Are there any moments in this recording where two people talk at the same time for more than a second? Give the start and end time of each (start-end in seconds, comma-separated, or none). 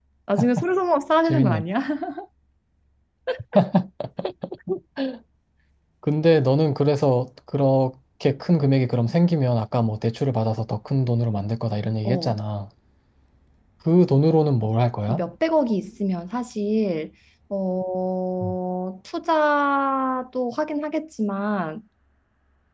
none